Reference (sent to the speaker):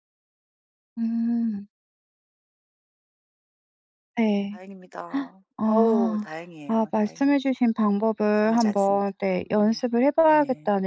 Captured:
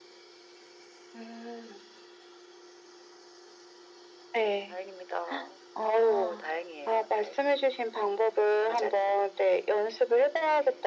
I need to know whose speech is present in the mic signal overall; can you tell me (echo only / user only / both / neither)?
echo only